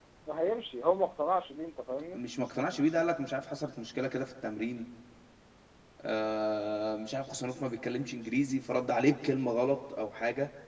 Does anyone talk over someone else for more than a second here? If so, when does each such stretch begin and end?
none

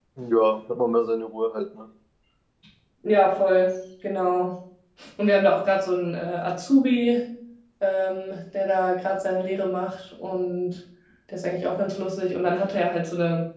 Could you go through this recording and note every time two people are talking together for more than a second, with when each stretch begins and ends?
none

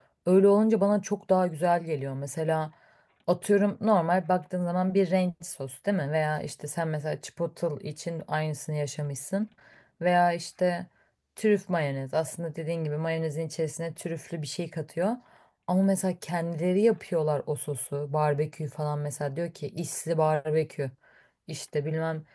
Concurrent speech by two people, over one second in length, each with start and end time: none

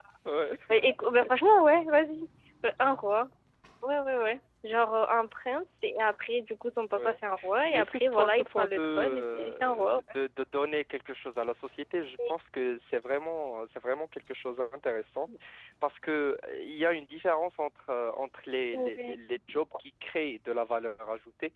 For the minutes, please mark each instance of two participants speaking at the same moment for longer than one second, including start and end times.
7.7-10.0

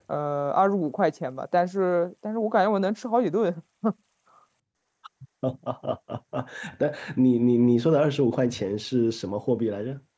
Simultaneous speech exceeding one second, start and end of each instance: none

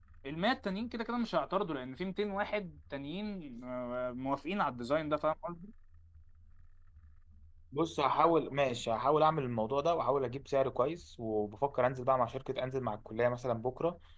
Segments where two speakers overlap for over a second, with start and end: none

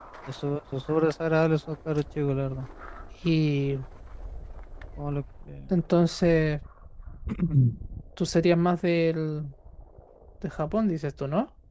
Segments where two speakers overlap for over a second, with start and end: none

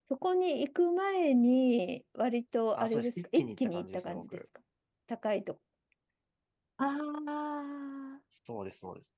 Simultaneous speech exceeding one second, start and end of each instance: 2.8-4.4

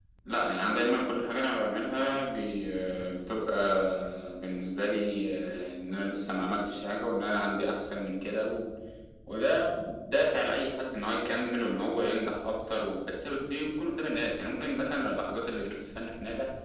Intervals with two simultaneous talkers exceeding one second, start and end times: none

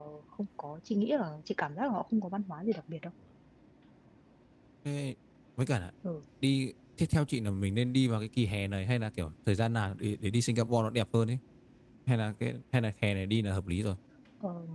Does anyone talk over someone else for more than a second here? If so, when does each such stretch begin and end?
none

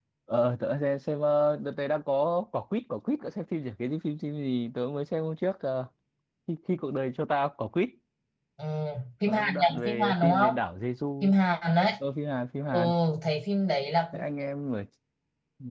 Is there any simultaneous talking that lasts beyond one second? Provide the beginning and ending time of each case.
9.2-10.5

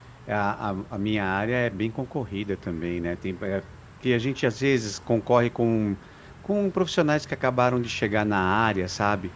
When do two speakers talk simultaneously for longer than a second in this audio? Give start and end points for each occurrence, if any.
none

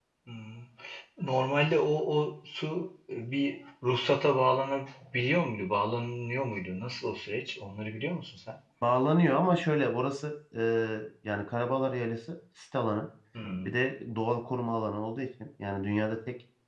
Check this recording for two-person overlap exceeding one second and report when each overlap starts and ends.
none

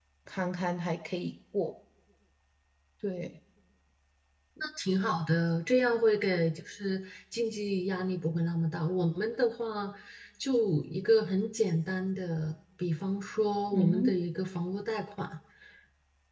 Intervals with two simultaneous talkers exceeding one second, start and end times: none

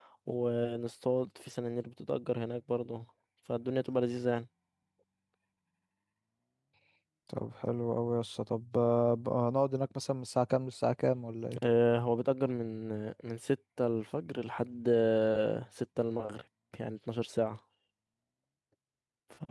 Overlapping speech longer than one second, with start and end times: none

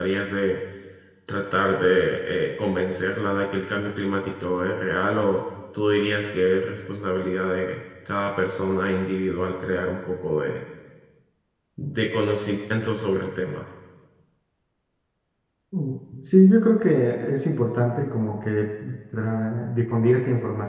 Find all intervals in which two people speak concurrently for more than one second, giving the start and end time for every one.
none

